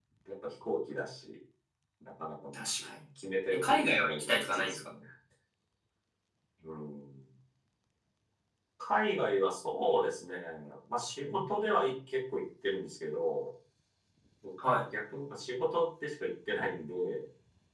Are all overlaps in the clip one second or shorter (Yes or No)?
No